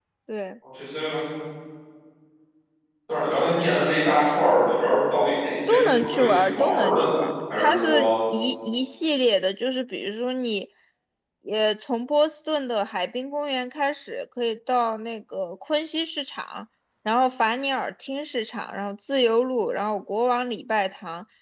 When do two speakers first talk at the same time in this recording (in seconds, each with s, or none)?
5.7 s